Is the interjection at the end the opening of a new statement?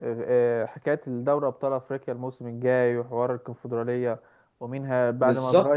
No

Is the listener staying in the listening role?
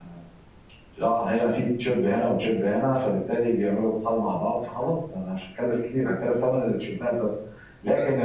Yes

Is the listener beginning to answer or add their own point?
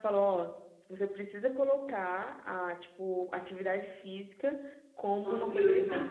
No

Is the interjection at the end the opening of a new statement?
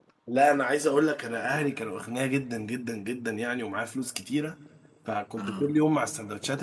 No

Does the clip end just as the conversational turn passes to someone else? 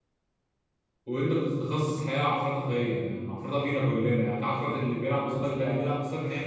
No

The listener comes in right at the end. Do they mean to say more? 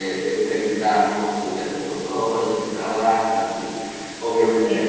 No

